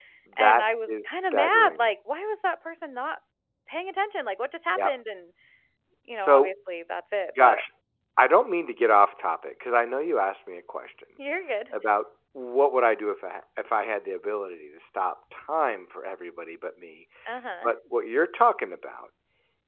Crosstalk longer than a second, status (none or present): present